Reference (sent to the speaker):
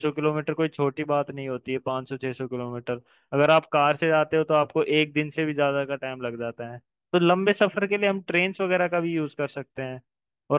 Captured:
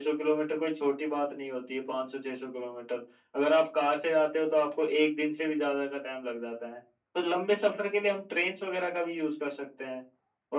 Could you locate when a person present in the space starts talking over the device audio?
none

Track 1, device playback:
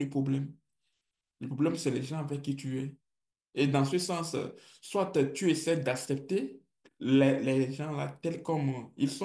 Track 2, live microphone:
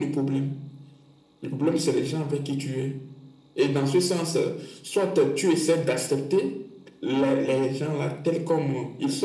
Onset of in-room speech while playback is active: none

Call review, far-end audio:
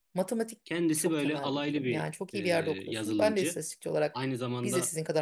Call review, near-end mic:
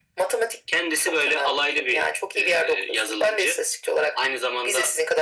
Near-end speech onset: none

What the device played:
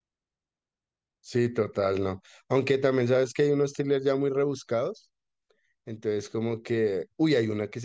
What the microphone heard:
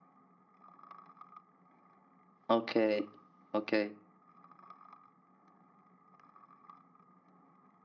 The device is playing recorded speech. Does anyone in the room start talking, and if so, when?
2.5 s

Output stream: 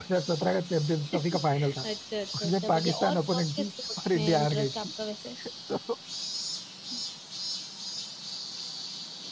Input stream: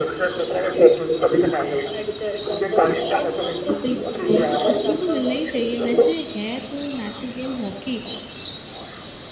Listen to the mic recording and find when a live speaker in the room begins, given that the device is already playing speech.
3.8 s

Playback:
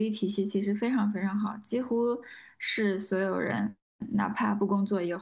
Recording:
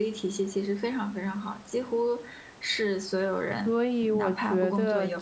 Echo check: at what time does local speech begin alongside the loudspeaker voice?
3.6 s

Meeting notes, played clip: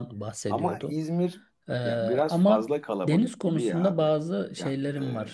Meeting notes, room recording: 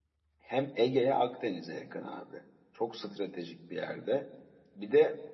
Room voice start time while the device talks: 0.4 s

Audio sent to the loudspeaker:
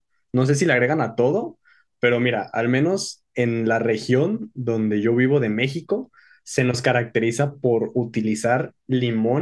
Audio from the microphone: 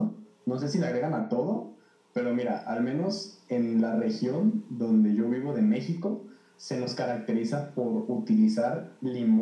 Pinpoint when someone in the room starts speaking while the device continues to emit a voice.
none

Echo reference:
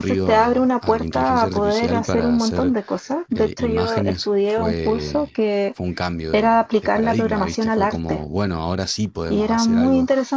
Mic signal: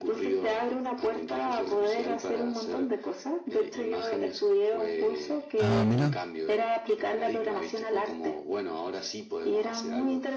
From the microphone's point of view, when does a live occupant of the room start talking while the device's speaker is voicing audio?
5.6 s

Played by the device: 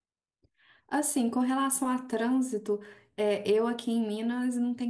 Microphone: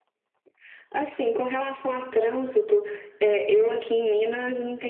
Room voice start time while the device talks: none

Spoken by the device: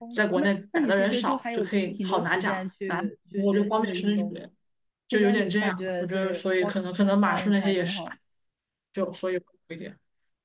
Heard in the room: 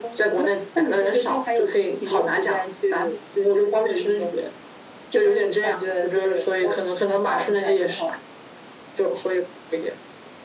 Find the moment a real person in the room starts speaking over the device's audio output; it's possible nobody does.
none

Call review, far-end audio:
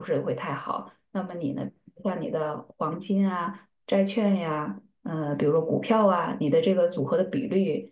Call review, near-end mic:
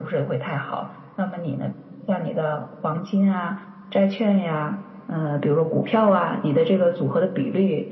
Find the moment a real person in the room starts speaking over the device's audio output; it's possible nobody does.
none

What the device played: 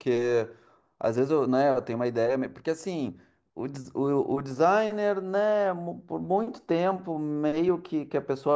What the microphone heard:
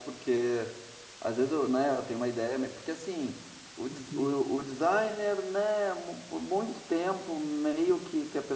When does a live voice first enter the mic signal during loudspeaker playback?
3.9 s

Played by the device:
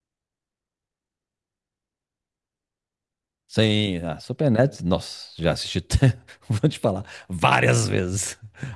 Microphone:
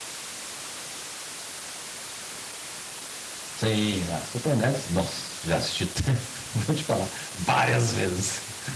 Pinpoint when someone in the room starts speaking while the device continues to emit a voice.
none

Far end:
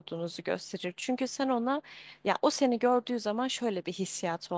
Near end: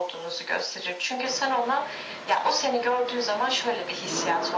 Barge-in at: none

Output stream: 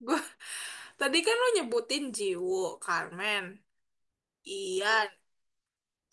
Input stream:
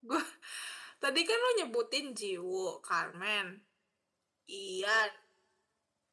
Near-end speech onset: none

